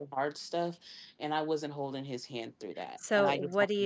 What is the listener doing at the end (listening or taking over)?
taking over